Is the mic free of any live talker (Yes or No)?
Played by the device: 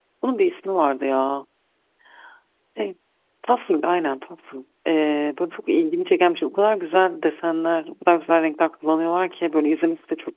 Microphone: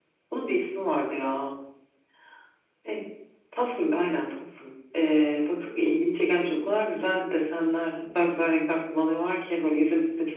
Yes